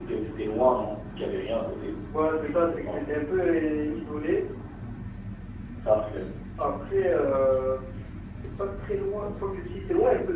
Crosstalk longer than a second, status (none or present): none